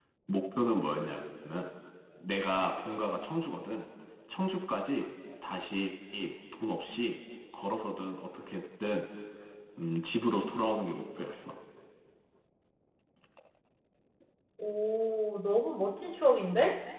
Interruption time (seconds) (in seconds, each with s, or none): none